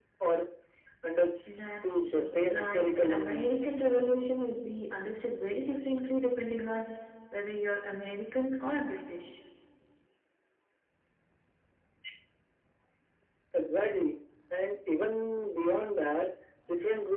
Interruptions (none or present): present